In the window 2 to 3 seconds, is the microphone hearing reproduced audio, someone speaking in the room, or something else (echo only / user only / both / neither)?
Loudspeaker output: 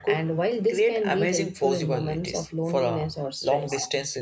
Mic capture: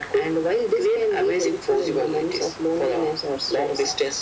echo only